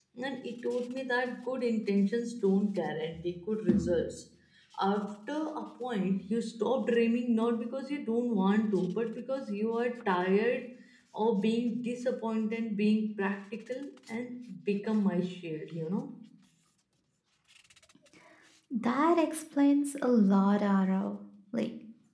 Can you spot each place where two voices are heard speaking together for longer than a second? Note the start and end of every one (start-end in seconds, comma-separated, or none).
none